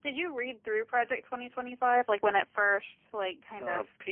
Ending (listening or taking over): taking over